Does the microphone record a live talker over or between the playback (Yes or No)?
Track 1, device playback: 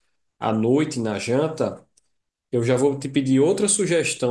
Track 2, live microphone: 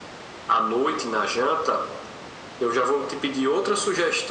No